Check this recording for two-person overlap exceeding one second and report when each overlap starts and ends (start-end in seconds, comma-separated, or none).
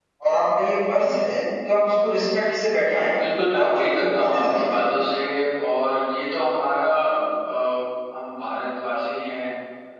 3.6-4.8